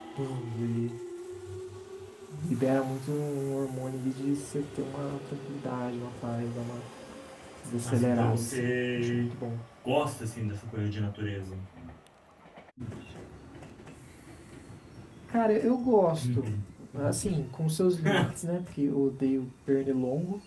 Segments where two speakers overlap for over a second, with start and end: 7.8-9.4

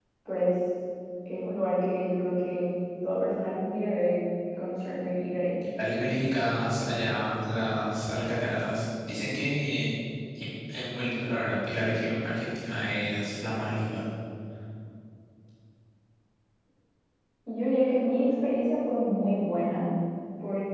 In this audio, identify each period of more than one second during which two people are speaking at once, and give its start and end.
none

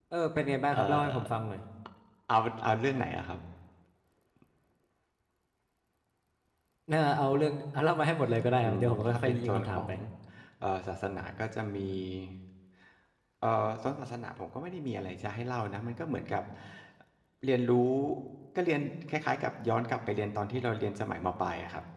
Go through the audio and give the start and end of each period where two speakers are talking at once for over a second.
8.6-9.9

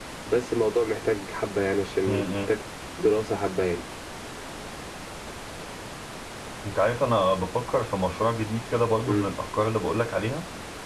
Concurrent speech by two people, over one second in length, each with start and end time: none

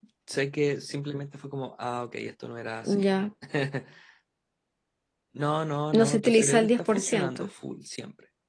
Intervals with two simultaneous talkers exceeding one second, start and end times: 5.9-7.5

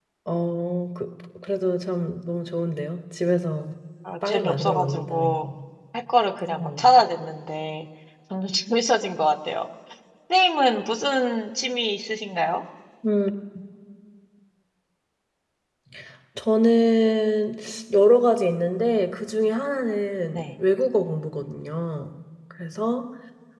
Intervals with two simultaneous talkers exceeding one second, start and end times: 4.2-5.5

